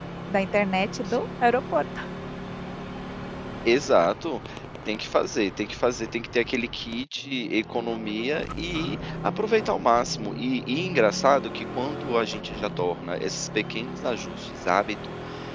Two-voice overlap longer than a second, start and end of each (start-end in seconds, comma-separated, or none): none